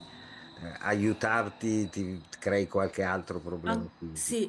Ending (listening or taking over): taking over